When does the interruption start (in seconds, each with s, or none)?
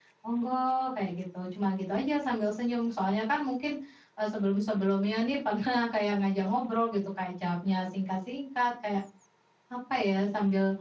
none